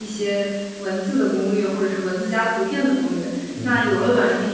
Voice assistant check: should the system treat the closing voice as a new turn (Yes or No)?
No